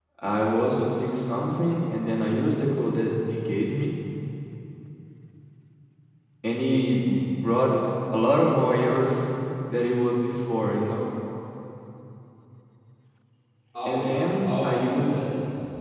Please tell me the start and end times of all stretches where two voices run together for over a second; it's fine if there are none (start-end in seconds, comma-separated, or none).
13.8-15.2